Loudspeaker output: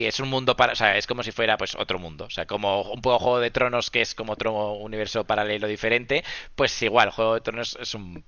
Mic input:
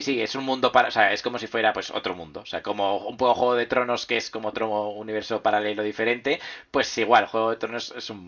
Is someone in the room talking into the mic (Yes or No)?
No